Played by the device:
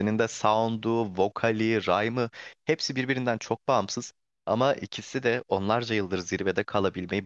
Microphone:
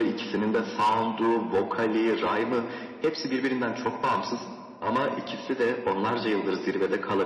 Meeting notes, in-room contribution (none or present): none